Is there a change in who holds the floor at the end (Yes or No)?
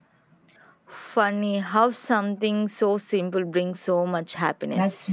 Yes